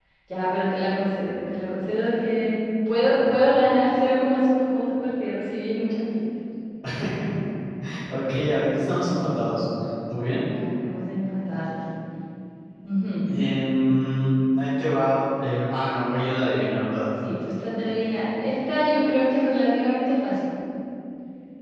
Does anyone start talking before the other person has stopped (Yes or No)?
No